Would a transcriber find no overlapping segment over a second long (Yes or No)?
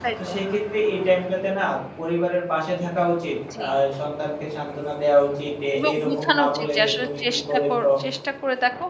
No